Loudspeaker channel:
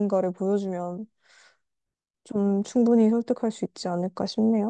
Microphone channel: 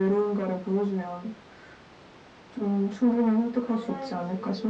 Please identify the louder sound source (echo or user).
echo